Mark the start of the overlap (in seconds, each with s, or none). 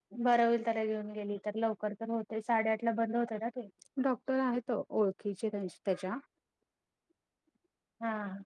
none